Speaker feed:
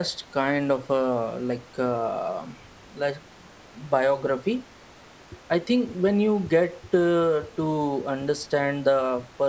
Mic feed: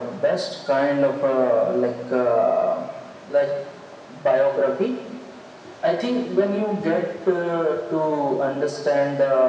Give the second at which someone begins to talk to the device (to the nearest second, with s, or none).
none